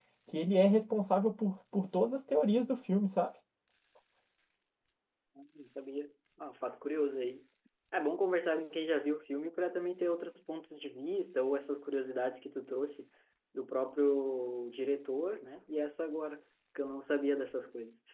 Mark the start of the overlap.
none

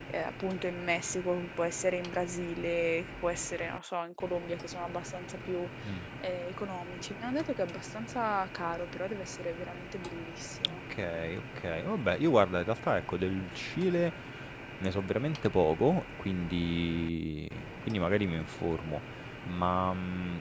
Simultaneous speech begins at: none

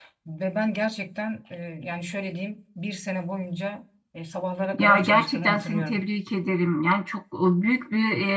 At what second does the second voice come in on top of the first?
5 s

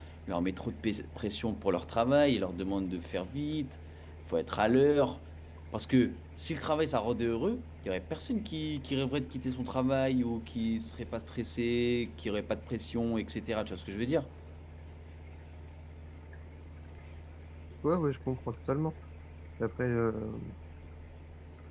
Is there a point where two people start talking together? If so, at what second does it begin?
none

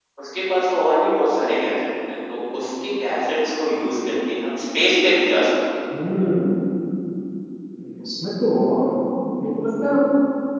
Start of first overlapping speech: none

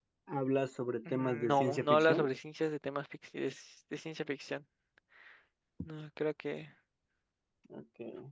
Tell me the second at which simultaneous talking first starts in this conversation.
1 s

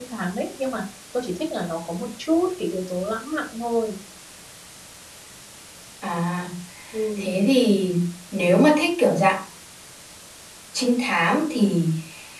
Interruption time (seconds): none

